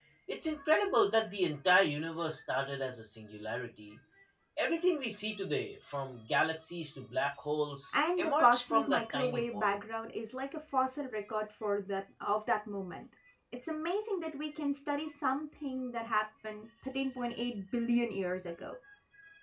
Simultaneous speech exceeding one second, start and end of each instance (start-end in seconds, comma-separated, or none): 7.9-9.8